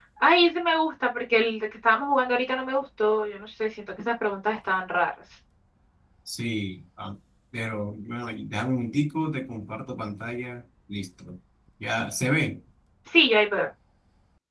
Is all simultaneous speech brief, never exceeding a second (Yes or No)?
Yes